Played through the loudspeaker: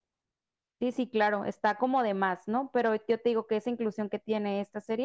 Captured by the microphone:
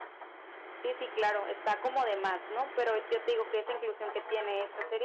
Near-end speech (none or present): none